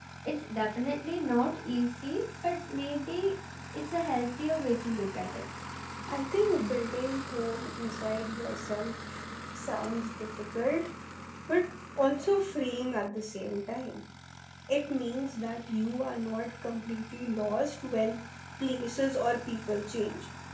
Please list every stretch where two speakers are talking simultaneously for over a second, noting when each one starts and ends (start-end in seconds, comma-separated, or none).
none